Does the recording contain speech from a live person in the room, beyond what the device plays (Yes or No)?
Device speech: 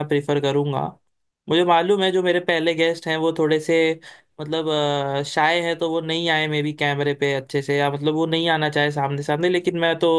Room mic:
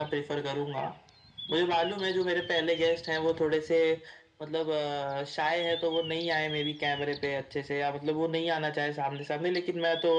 No